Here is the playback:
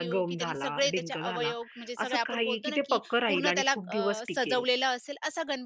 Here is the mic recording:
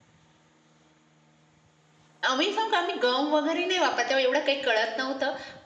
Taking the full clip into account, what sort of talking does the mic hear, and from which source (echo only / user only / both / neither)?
user only